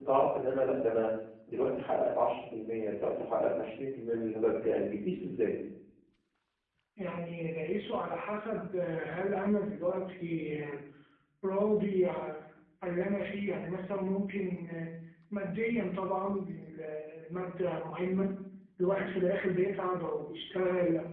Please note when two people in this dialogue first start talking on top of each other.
none

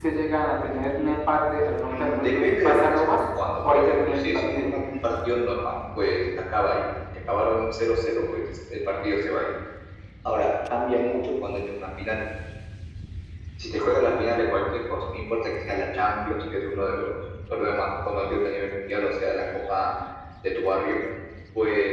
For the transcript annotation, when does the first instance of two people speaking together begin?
2 s

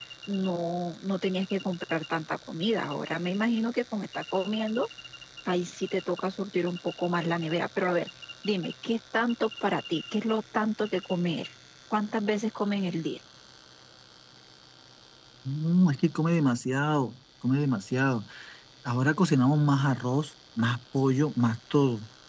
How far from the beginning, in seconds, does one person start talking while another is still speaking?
none

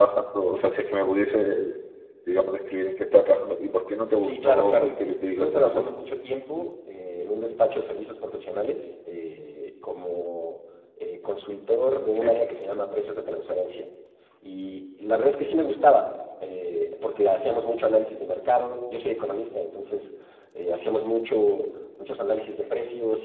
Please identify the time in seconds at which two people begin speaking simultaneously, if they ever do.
4 s

